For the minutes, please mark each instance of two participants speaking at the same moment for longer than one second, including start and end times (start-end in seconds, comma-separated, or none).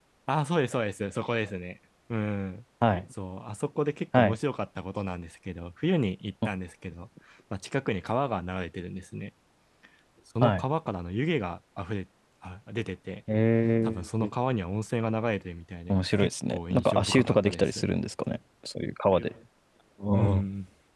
15.9-17.8